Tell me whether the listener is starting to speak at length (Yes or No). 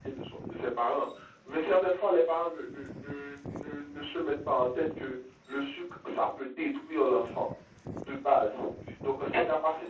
No